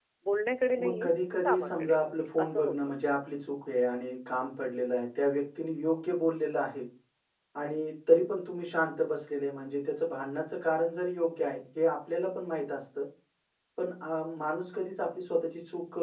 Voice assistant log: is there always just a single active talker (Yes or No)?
No